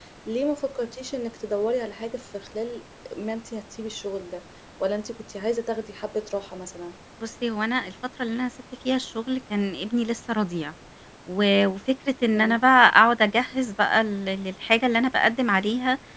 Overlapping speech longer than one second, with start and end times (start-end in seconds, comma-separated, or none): none